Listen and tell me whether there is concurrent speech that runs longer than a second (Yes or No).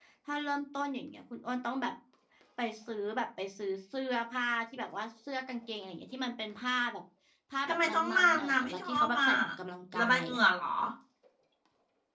Yes